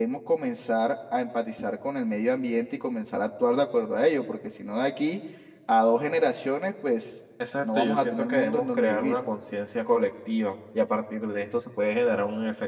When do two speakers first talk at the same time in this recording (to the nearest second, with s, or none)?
8 s